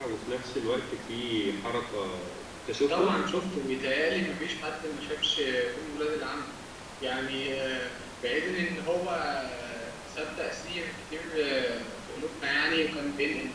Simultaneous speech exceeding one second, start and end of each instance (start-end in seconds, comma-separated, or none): none